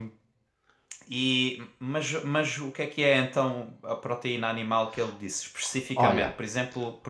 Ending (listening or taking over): listening